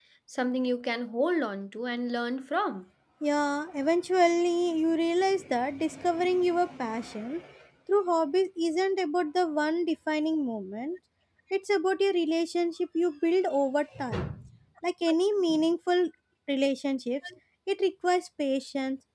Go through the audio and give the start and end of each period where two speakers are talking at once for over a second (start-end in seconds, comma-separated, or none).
none